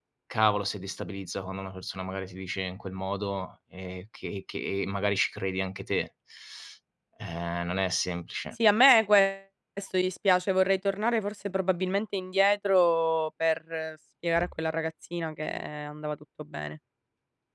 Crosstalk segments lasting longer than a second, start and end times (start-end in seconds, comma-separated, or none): none